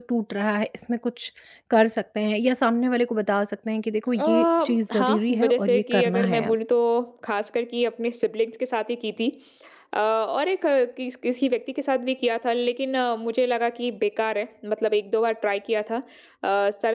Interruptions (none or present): present